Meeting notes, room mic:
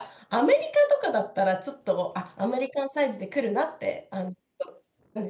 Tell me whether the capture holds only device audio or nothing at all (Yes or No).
No